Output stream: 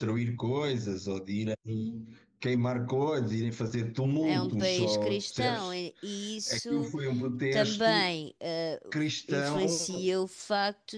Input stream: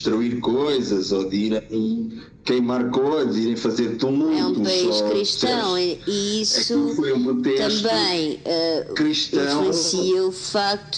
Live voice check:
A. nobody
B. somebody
A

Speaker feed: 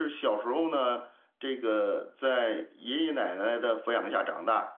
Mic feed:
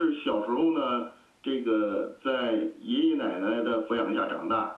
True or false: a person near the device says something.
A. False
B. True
A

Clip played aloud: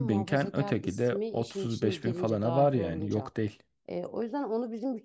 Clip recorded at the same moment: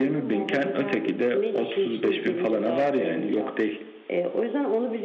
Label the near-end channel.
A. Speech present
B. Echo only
B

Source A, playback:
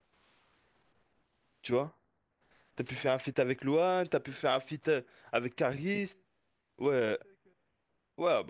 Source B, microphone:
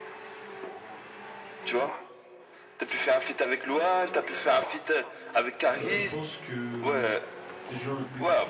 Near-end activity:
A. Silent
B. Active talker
B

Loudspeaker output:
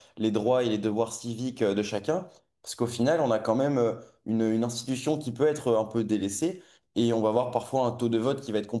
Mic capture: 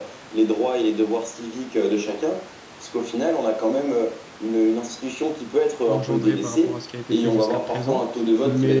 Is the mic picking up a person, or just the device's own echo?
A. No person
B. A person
B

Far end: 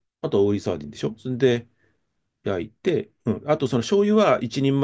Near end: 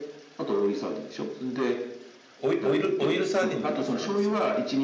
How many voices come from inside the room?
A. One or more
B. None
A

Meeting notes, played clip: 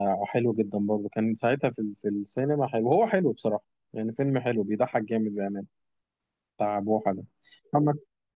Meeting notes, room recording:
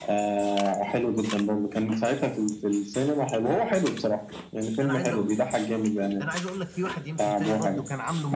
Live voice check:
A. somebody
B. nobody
A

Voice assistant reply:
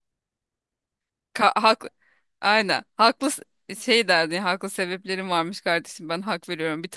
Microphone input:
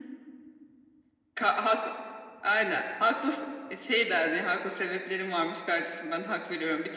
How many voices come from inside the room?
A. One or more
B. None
B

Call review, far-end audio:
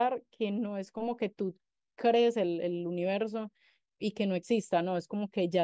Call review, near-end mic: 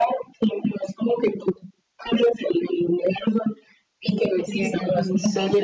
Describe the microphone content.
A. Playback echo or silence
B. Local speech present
B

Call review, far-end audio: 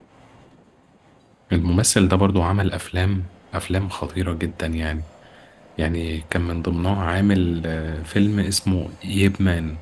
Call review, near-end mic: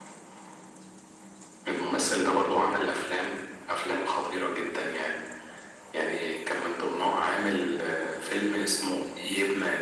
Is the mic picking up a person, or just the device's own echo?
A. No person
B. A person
A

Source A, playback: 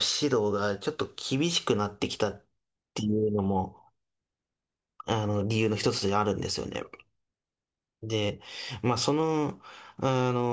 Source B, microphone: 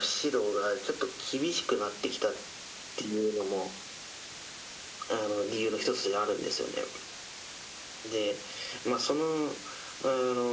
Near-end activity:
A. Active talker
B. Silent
B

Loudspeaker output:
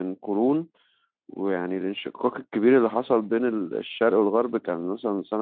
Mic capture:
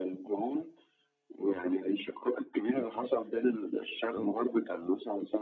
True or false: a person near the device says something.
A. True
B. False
B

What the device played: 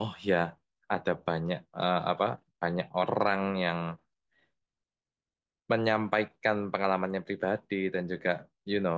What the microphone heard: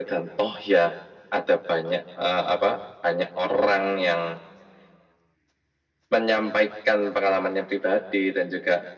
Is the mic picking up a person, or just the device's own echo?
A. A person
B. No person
B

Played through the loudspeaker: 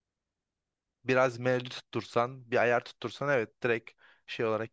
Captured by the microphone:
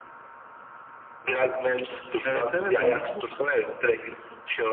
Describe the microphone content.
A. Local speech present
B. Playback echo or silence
A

